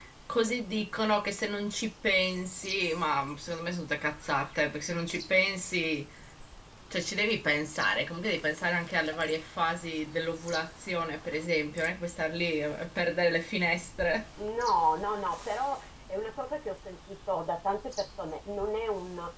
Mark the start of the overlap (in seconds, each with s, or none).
none